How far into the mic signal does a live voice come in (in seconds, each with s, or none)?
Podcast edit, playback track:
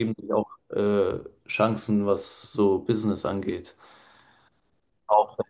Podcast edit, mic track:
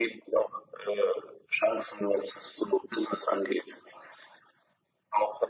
none